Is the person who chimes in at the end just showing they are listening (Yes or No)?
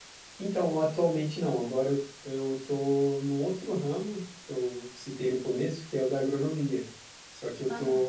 Yes